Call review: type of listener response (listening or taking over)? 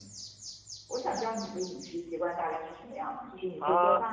taking over